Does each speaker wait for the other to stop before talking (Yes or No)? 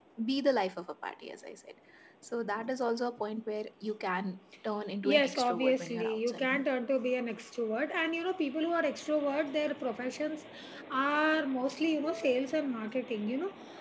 No